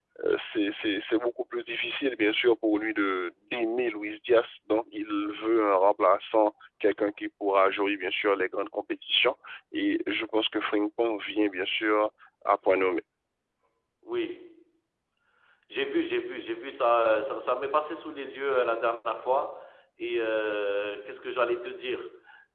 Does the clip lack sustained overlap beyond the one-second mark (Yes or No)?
Yes